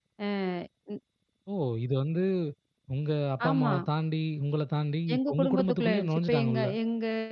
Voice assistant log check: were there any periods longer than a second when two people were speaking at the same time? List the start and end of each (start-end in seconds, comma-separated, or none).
5.1-6.7